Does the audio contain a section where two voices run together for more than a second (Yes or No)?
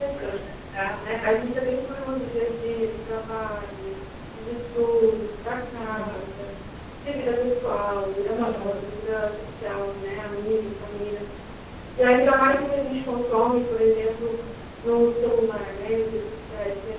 No